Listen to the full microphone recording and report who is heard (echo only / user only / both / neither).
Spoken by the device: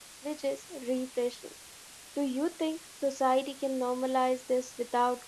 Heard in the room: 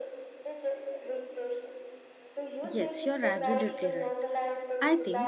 both